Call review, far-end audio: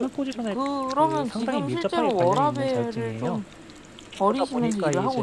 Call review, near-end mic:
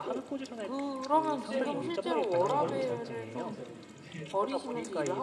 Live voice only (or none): 떼 버리 뭐 갖다 버리고 있습니다 실제로. 이제